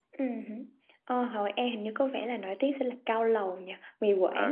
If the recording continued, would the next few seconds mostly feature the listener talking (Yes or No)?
Yes